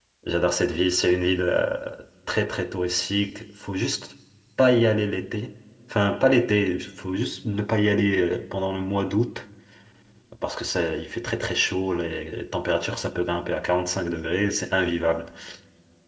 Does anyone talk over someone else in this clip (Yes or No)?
No